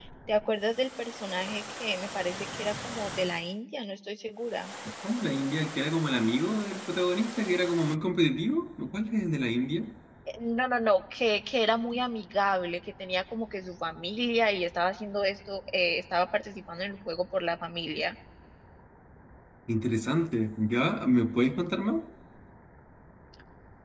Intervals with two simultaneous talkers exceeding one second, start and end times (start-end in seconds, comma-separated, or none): none